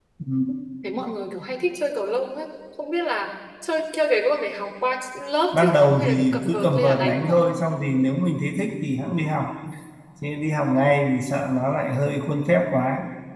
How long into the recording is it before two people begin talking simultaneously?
6 s

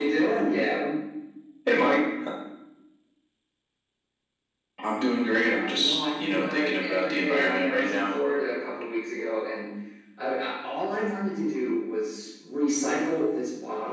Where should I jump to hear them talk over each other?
6 s

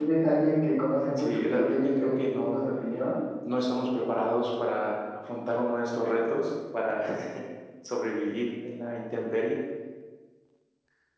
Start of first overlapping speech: 1 s

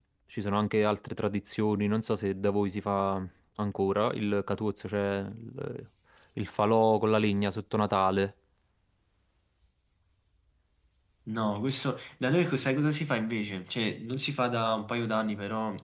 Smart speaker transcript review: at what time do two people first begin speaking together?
none

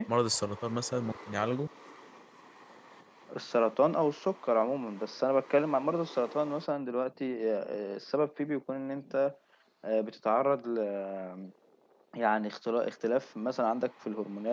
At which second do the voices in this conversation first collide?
none

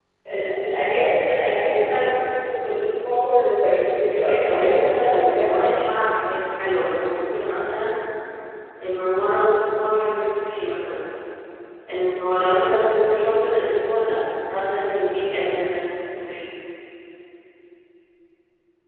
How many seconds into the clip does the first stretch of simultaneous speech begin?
4 s

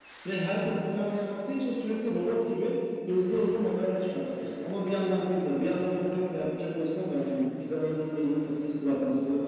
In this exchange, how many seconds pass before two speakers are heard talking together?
none

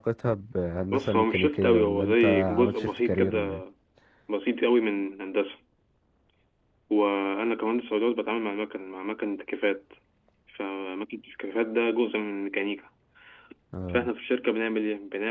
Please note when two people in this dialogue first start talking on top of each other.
1 s

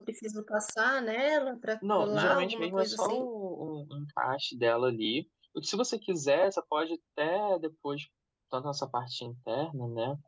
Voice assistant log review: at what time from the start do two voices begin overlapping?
2 s

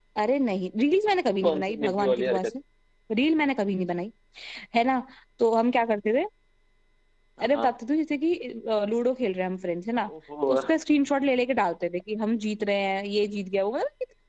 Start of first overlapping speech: 1 s

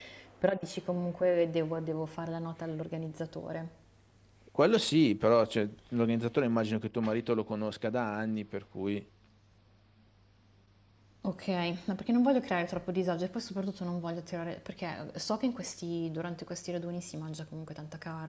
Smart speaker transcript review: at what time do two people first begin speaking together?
none

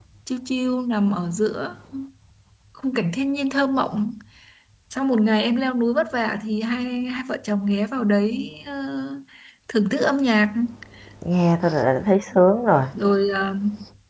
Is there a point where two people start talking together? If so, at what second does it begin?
none

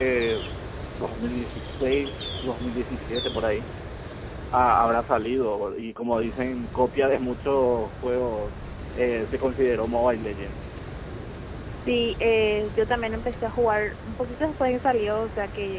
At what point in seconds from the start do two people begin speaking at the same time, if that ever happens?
none

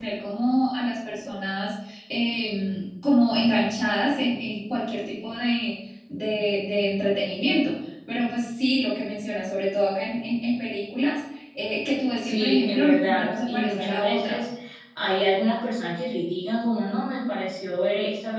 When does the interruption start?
12 s

